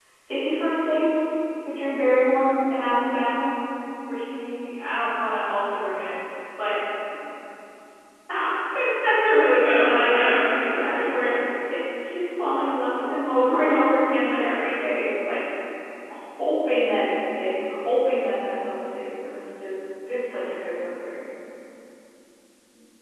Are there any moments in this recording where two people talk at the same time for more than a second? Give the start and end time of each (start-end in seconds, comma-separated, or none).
9.6-11.5